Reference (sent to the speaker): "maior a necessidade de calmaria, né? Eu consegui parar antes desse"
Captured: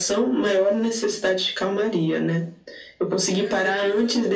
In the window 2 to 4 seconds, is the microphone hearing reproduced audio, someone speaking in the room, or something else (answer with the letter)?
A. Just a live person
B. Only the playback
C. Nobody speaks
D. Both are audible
D